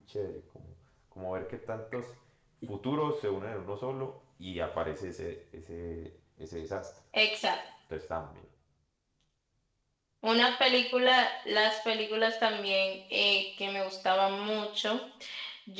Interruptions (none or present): none